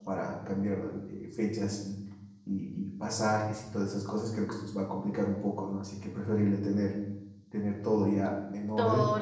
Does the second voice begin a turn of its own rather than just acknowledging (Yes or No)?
Yes